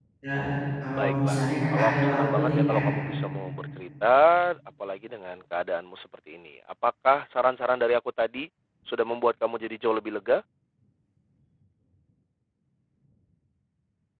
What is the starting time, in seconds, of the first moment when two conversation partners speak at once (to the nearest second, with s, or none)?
1 s